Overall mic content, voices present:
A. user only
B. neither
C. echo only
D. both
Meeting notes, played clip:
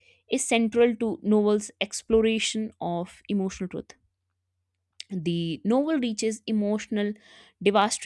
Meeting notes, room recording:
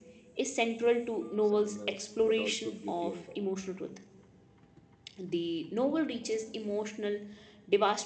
D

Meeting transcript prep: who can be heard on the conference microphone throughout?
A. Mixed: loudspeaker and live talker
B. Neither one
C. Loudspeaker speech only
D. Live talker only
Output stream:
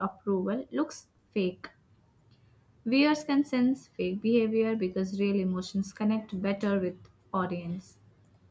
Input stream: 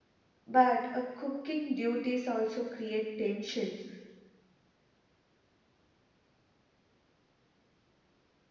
D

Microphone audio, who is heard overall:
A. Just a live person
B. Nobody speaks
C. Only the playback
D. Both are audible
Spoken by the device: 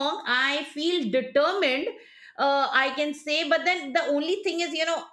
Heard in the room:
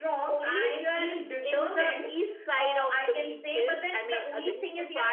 D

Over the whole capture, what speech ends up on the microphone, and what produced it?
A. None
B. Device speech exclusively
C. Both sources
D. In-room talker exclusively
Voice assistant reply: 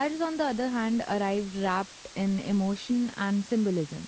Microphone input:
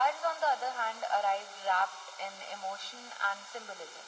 B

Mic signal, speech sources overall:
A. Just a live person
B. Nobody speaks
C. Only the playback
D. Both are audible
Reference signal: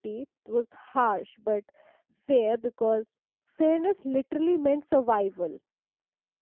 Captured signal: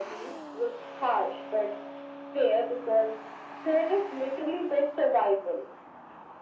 C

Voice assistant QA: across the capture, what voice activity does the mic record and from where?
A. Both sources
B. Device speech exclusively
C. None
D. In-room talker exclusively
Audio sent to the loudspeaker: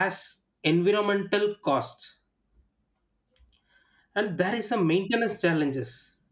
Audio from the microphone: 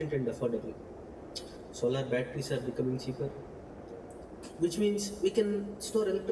D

